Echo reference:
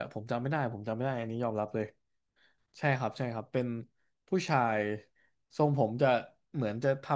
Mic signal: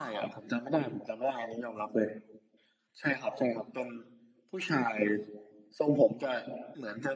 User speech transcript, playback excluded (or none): none